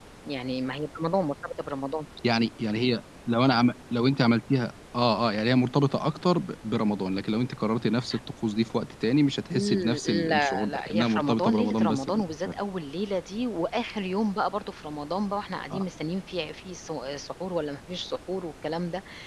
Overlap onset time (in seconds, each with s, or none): 9.5 s